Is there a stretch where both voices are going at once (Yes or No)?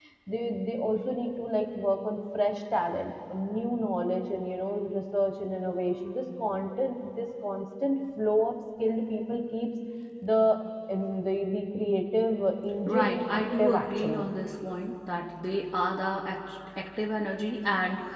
Yes